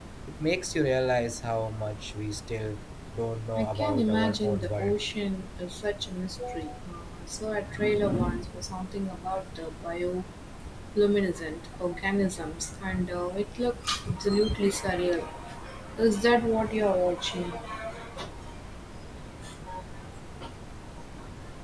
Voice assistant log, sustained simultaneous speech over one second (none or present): present